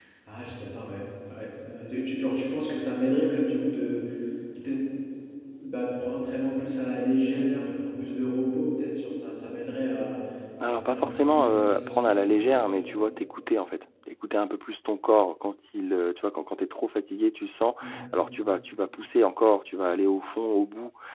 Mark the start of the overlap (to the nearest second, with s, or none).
11 s